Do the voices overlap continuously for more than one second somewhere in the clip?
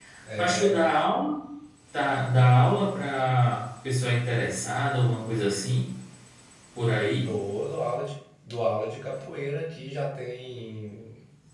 No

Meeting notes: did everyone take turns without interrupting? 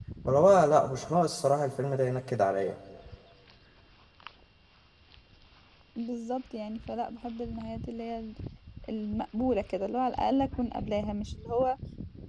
Yes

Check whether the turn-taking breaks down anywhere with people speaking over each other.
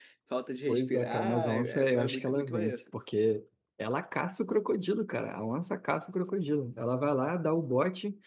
Yes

